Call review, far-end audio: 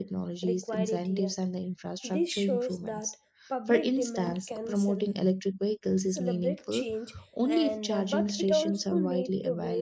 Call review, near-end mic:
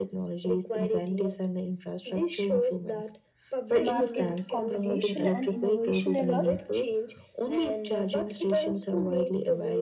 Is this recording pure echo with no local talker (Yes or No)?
No